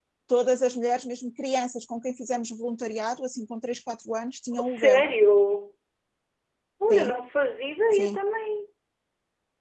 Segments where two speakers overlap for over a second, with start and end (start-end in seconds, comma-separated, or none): none